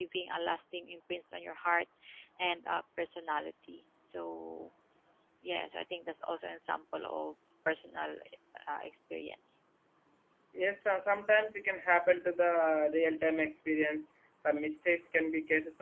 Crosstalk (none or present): none